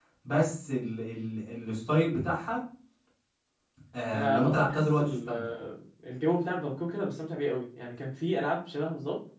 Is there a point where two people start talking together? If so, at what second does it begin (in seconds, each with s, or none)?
4.1 s